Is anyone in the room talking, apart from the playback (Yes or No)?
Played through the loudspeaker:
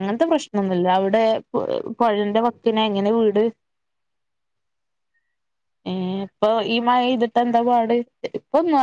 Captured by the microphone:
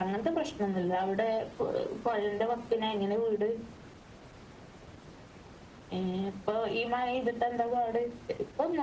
No